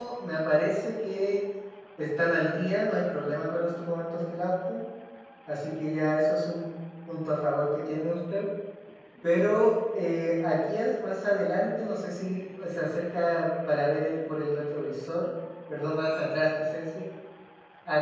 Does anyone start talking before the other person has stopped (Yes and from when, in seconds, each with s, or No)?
No